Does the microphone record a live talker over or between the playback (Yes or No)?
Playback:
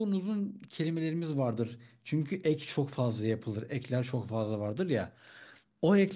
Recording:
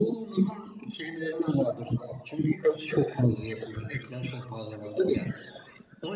No